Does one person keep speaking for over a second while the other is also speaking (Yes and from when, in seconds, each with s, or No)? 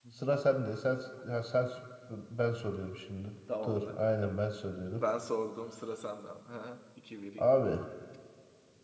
No